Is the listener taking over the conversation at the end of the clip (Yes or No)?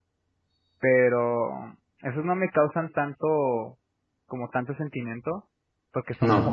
No